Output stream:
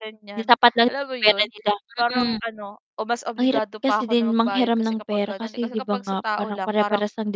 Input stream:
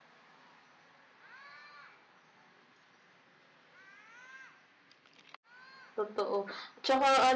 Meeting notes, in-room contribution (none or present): present